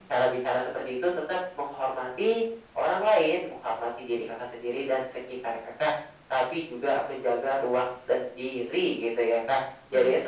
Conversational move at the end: listening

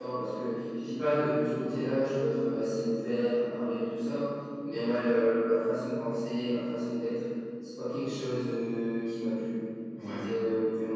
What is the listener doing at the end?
listening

